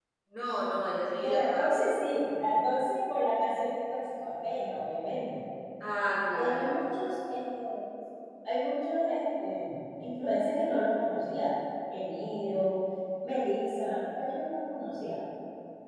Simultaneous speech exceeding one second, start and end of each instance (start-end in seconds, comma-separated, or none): none